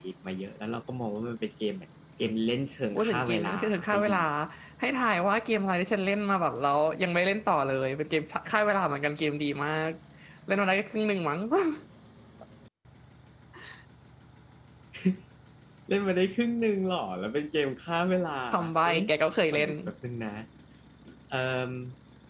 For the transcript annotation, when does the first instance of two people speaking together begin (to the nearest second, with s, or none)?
3 s